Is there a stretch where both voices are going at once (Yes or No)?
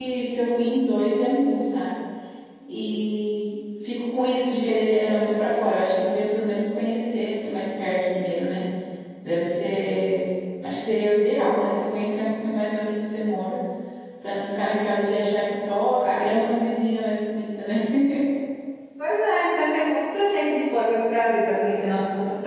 No